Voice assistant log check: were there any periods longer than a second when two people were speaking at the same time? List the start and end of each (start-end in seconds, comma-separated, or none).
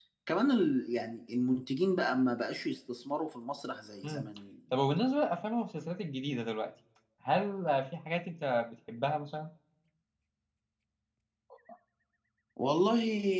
none